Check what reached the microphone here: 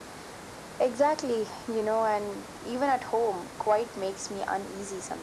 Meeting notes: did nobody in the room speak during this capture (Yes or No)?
Yes